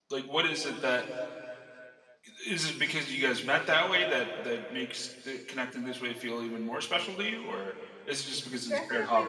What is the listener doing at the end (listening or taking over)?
taking over